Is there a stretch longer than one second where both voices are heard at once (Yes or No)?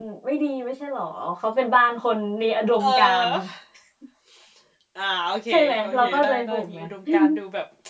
Yes